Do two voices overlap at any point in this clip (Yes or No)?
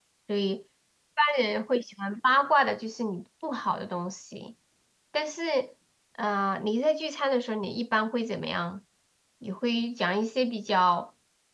No